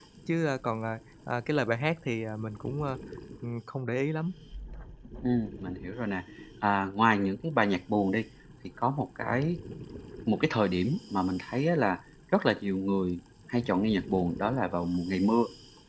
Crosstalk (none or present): none